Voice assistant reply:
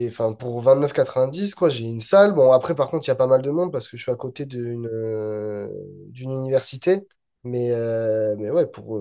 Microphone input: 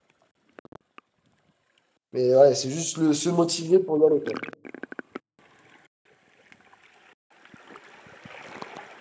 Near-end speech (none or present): present